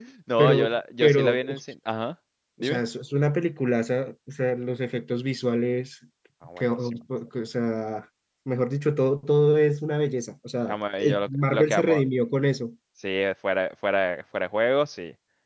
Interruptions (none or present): present